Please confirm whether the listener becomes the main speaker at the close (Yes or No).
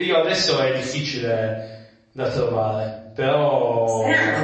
Yes